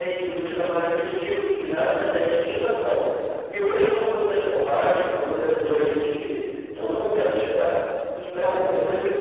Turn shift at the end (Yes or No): No